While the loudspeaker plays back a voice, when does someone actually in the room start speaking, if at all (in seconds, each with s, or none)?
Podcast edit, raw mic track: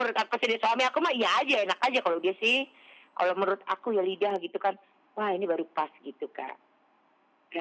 none